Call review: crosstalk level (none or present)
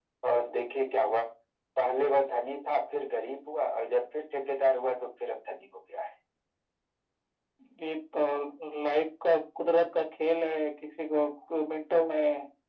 none